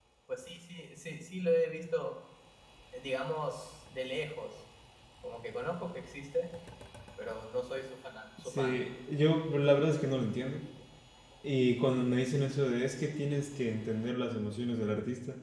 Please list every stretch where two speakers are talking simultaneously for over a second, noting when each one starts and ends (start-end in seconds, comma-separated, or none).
none